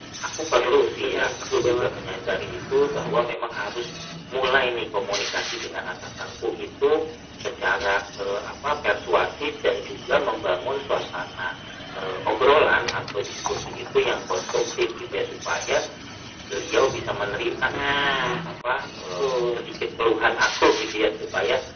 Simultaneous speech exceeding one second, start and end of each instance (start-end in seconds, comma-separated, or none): 0.6-1.9